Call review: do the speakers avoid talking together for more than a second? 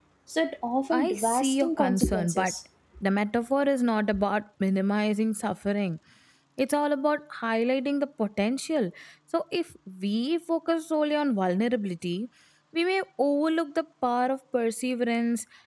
No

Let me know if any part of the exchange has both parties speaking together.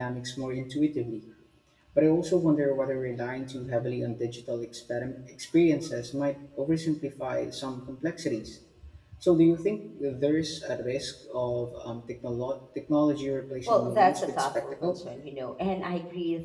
Yes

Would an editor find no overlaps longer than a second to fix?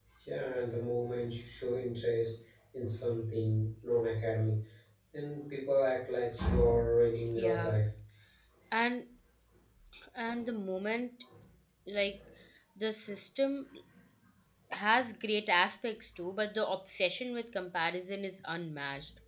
Yes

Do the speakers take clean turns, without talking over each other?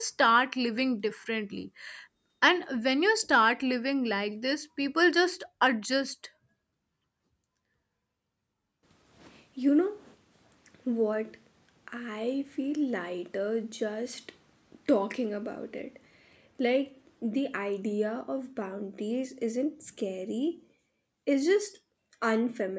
Yes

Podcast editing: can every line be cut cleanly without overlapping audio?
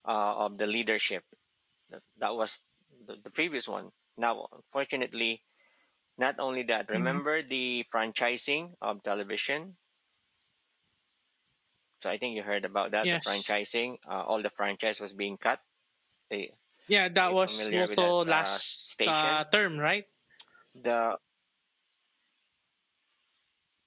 No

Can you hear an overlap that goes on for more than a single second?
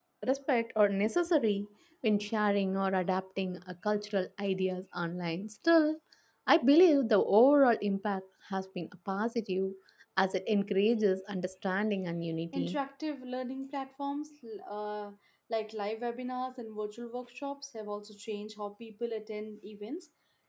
No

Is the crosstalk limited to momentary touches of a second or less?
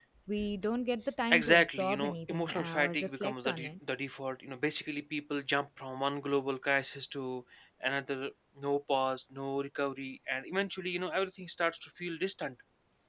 No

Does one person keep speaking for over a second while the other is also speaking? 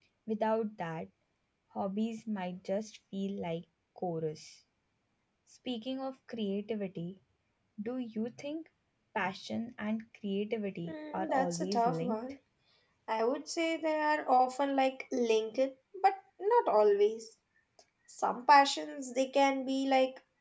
Yes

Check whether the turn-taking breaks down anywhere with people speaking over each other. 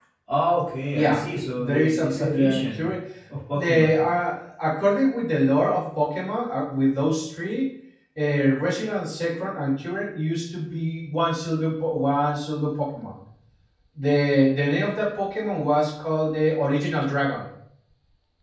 Yes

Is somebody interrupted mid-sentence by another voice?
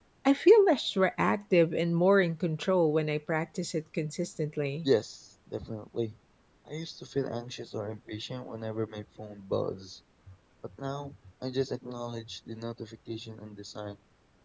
No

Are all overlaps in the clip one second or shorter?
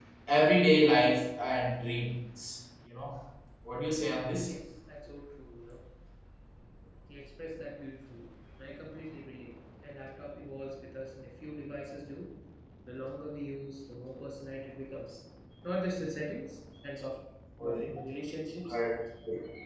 Yes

